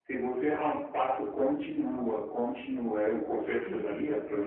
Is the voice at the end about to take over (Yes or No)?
Yes